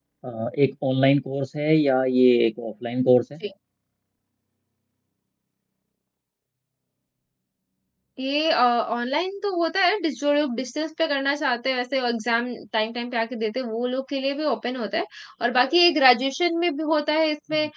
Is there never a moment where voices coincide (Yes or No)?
Yes